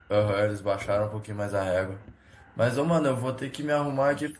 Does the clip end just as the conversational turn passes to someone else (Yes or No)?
No